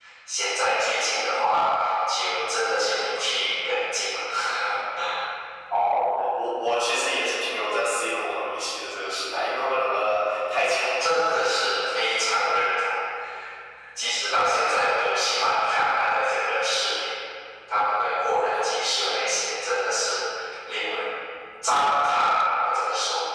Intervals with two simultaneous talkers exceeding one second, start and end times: none

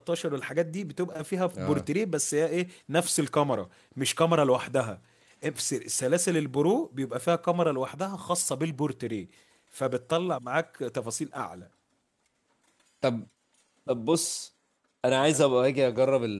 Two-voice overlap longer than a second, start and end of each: none

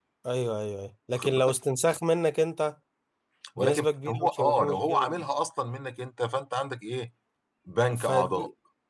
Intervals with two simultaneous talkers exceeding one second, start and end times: 3.6-5.2

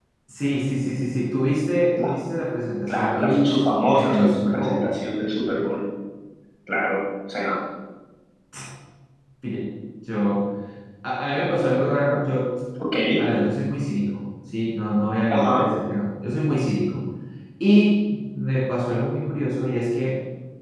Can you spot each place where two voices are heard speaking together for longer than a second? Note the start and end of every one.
2.9-4.8

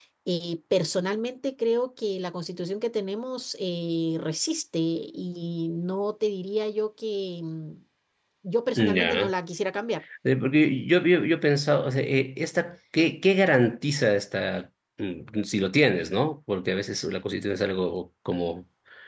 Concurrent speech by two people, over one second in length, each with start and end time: none

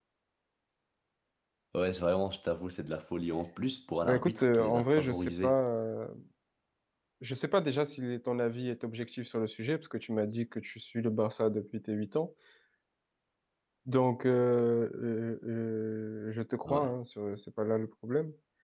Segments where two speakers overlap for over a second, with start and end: 4.0-5.6

